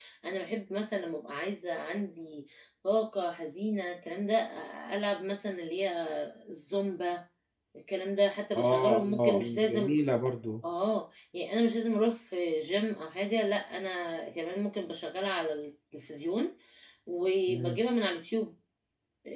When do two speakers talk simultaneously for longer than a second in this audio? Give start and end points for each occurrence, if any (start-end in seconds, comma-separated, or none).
8.6-10.0